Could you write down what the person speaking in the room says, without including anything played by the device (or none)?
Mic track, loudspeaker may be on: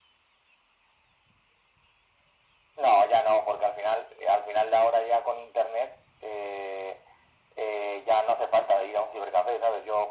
none